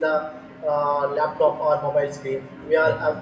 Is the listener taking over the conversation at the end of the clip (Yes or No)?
No